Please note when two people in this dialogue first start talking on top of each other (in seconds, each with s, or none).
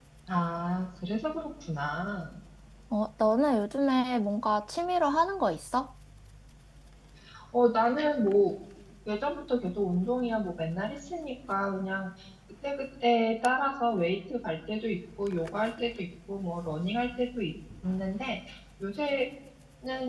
none